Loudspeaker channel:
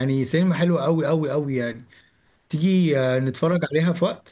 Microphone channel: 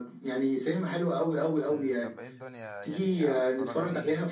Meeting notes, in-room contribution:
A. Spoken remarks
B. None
A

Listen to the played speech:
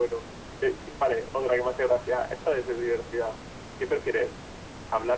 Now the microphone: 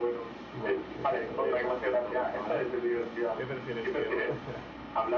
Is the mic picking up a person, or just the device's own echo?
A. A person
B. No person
A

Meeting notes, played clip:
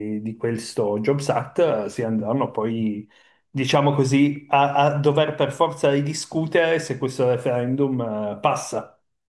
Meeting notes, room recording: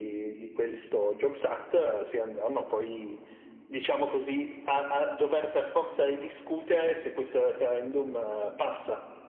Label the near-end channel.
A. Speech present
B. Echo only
B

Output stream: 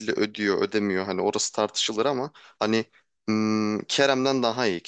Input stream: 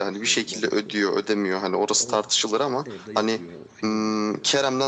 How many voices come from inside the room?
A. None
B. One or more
B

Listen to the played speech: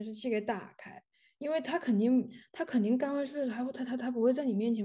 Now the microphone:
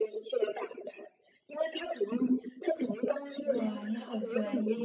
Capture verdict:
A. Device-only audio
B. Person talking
B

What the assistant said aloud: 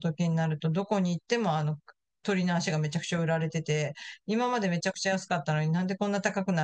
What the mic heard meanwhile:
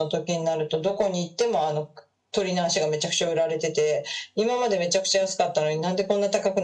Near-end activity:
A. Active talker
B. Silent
B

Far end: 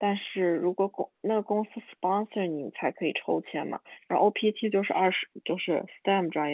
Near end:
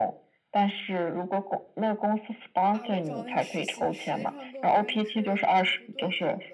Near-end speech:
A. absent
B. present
B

